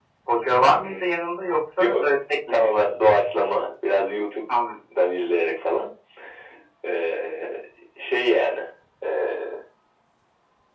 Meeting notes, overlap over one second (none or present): none